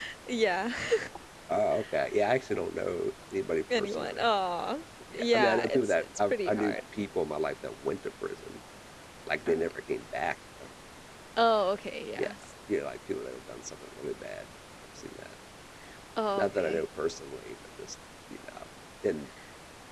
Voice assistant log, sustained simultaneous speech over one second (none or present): present